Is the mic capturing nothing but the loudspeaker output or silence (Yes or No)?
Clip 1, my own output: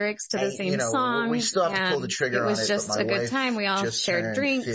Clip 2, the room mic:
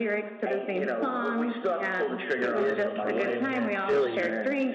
No